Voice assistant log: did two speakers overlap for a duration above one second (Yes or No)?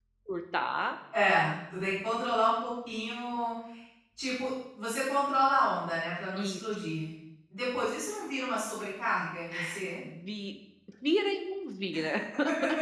No